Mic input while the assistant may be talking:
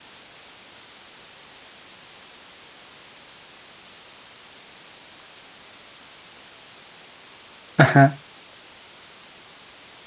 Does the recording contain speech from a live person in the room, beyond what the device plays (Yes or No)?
Yes